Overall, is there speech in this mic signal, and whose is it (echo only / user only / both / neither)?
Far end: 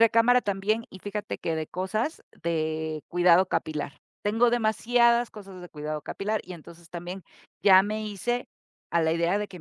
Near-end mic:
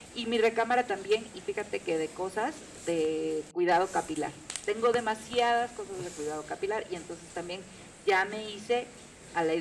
echo only